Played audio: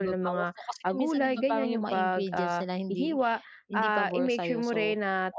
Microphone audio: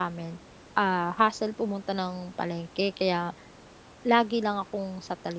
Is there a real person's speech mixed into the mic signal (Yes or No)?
Yes